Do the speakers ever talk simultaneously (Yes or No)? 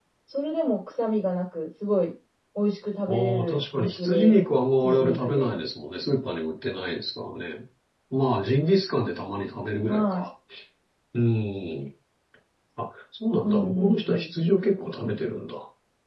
Yes